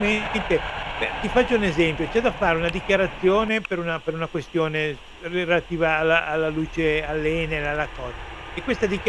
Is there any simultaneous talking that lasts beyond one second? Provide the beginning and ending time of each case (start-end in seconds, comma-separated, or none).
none